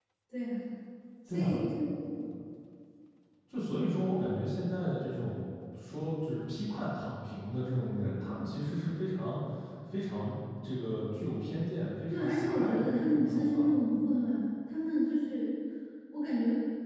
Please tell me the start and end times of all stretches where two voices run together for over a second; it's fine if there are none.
12.1-13.7

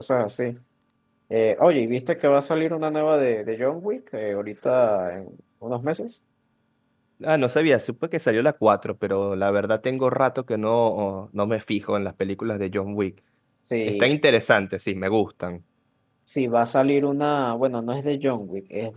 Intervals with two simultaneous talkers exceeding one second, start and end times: none

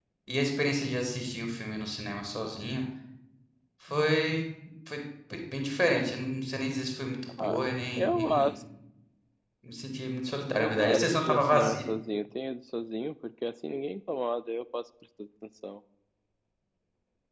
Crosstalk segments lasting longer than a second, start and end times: 10.6-11.8

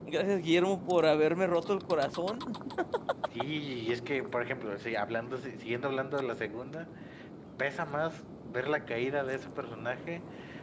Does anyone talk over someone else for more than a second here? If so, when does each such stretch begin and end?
none

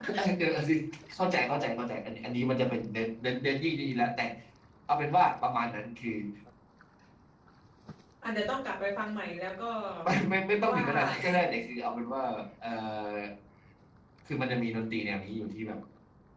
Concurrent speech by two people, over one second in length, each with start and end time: none

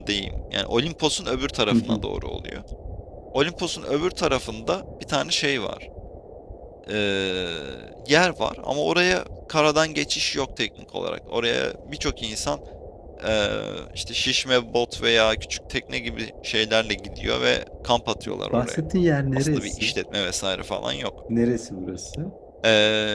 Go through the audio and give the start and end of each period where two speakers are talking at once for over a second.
none

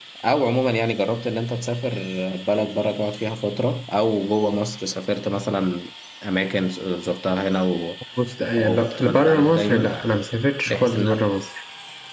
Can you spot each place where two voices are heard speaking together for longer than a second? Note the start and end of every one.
8.6-10.0

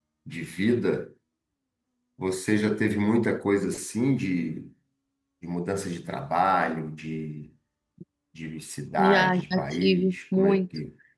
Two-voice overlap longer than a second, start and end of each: 9.0-10.6

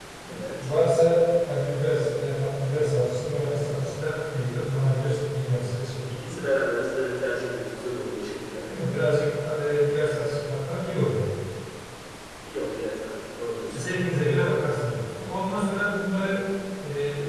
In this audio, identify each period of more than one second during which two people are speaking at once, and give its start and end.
none

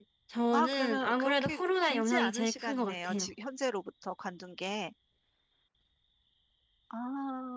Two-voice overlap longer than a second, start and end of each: 0.5-3.3

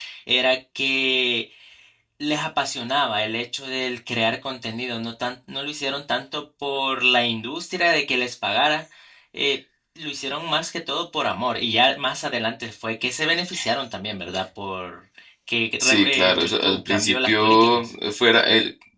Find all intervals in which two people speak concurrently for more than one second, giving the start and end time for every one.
15.8-17.9

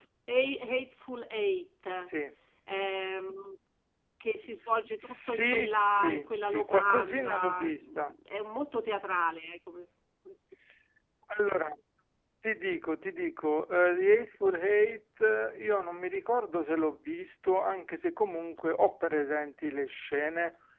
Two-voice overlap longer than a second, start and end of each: 5.0-8.1

